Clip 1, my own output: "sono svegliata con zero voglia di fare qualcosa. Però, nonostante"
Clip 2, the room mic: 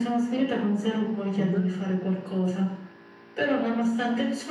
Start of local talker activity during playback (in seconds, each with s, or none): 1.4 s